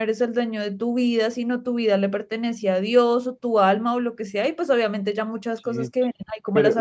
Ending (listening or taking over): taking over